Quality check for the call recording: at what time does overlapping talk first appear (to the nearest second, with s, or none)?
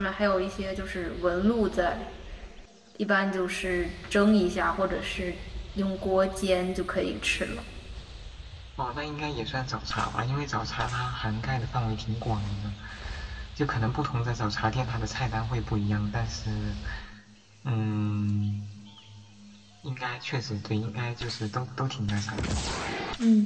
none